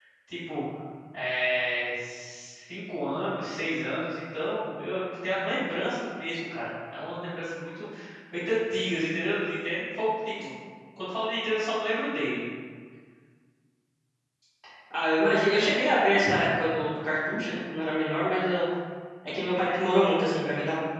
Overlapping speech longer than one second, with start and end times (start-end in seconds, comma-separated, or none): none